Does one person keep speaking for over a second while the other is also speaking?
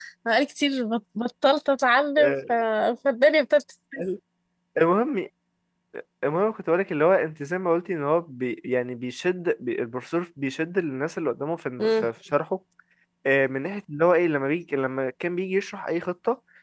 No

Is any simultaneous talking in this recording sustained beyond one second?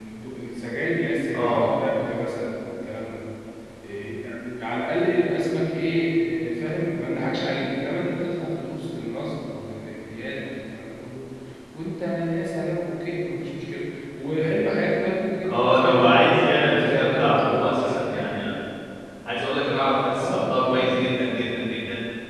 Yes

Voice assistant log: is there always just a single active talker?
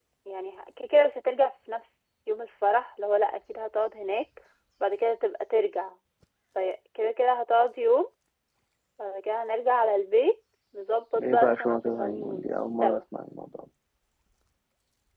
No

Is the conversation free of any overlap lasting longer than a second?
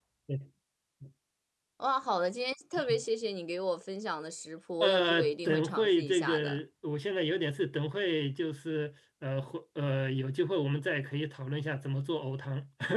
No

